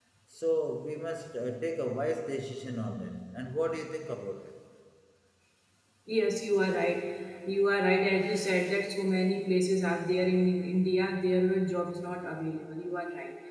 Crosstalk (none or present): none